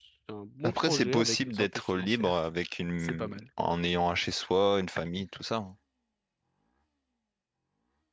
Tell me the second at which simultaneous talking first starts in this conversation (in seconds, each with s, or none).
0.6 s